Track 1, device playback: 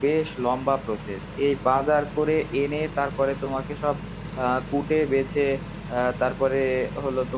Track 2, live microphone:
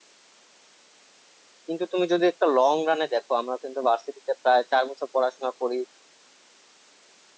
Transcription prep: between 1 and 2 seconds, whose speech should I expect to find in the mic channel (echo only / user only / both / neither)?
user only